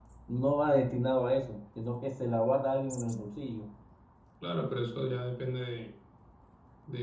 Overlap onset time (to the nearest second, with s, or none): none